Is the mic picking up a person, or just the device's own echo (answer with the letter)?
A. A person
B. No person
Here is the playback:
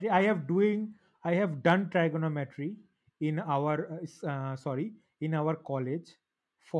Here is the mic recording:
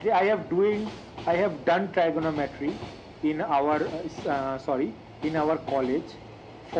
B